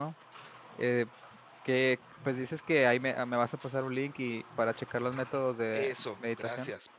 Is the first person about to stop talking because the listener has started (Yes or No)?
Yes